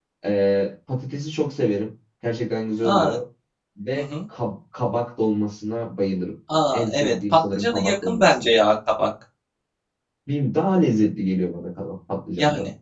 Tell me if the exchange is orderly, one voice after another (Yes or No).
No